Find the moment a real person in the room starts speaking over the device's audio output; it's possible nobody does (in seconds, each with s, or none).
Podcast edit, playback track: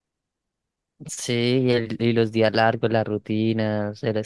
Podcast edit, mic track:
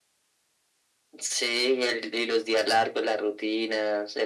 none